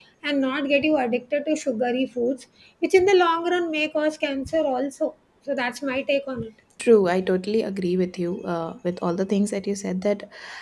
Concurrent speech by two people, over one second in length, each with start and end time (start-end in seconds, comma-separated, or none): none